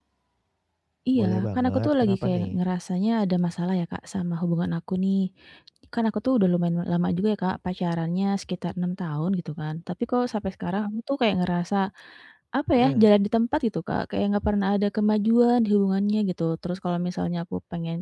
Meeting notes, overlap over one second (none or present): present